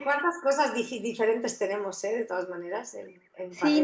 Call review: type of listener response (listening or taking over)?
taking over